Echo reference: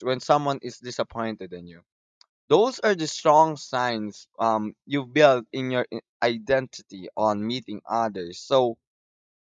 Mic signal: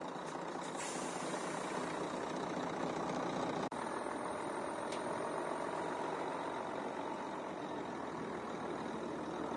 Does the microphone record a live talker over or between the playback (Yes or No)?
No